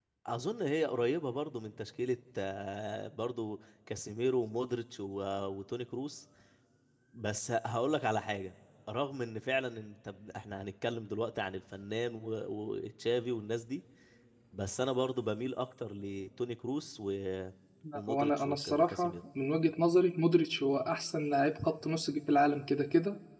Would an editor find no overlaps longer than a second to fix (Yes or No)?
No